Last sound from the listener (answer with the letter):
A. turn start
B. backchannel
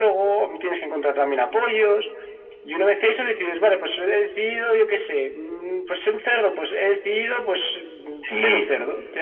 A